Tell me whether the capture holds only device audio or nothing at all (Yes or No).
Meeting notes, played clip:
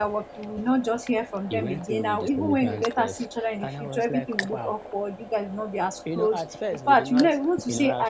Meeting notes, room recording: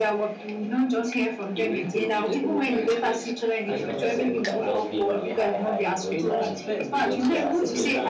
No